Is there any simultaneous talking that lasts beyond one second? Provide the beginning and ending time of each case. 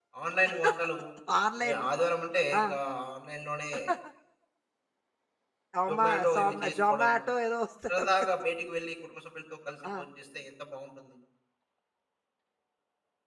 5.9-7.2

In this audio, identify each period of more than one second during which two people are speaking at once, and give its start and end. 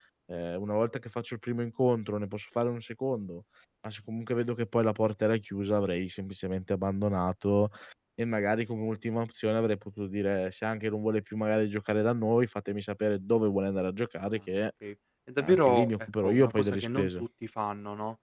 15.4-17.1

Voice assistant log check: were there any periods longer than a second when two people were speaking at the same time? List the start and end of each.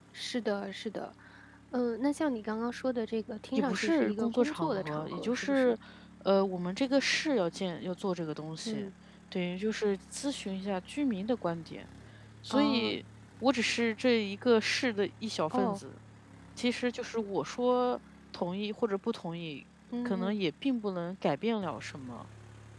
3.5-5.7

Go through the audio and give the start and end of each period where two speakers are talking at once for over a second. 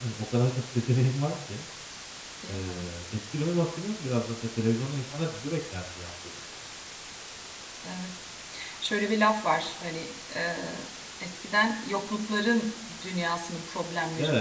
none

